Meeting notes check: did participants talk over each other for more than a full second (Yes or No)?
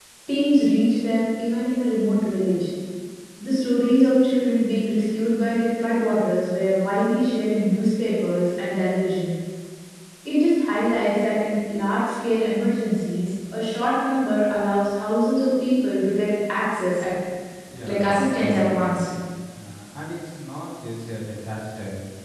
Yes